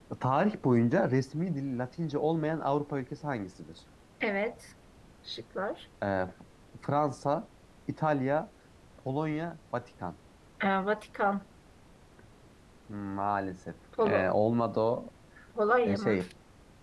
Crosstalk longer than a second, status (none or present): none